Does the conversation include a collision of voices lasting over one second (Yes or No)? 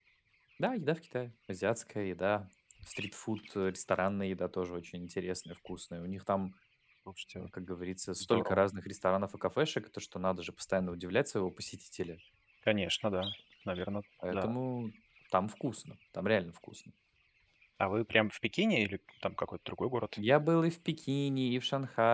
No